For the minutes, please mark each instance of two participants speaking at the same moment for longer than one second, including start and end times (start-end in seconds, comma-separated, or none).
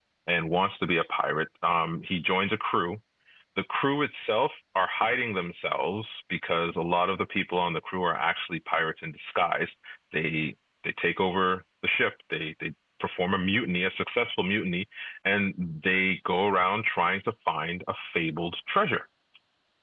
none